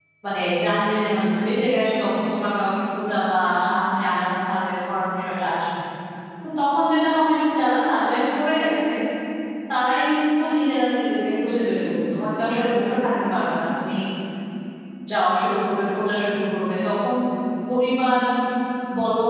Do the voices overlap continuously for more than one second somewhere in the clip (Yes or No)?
No